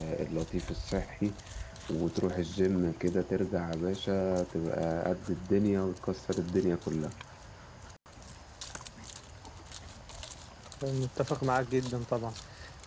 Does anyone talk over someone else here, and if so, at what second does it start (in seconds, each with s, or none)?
none